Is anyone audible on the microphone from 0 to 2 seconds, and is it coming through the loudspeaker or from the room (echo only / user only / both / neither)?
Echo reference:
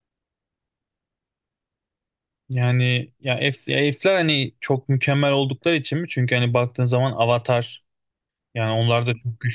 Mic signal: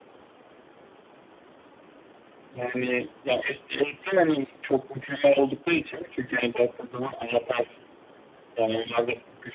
neither